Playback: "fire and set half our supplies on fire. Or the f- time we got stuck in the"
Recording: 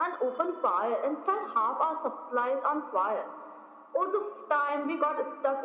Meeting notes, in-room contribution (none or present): none